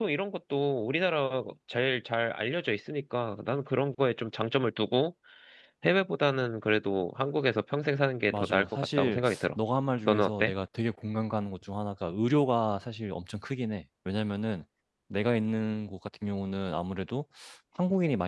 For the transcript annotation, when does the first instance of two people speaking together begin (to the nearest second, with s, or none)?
8 s